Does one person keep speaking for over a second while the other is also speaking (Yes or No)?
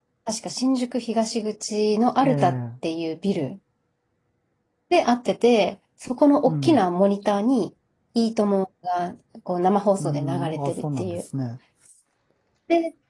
Yes